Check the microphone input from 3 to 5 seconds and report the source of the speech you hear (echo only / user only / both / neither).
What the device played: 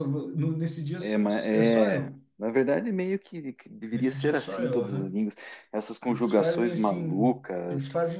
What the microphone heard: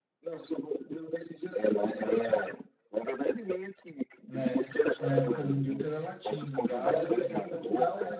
both